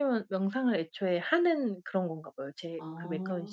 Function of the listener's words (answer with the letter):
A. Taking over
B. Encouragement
A